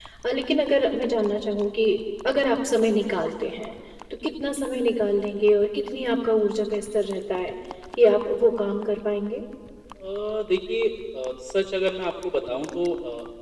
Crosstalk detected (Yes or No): No